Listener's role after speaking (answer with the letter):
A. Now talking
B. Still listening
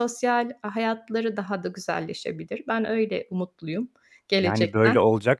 A